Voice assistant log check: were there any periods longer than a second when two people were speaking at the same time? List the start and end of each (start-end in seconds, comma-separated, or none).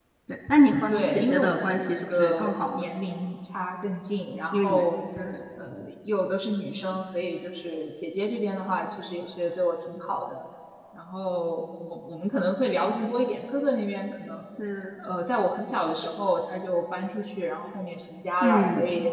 0.9-2.9